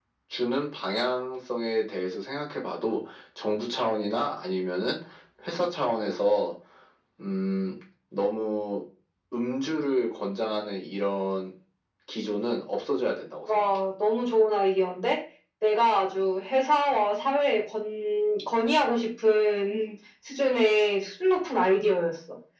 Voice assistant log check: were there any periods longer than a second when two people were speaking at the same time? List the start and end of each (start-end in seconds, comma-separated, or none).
none